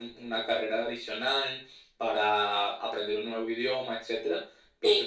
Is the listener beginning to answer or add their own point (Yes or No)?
No